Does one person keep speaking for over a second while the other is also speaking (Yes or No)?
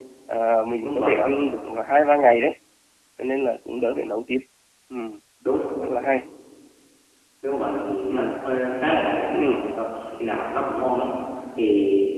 No